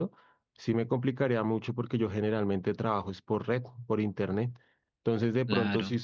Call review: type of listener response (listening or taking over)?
listening